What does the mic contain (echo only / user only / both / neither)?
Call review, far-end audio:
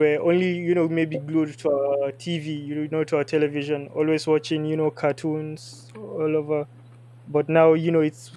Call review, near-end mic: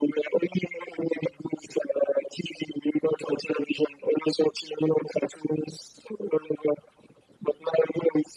echo only